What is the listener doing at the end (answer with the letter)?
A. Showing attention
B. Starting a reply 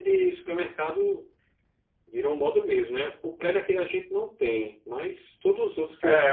B